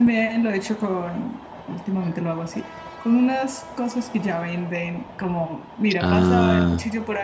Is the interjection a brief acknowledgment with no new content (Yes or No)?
Yes